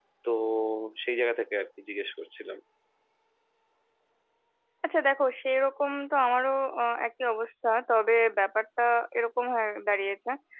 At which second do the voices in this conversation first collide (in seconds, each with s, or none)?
none